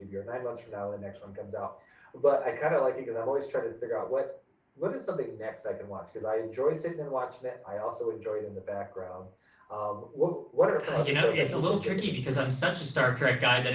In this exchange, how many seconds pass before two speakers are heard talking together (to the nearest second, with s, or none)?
11 s